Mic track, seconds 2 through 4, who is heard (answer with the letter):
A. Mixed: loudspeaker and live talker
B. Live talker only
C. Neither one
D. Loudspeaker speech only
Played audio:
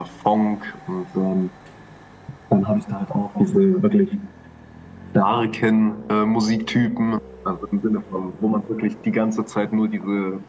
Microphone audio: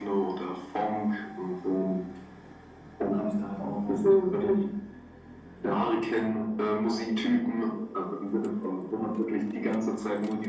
D